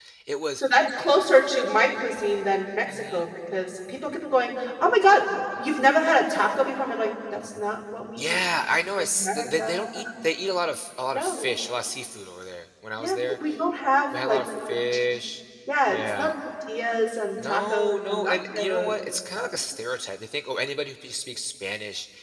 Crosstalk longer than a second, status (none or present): present